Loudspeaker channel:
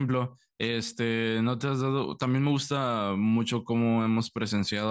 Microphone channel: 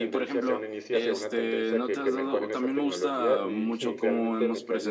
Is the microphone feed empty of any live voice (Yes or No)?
No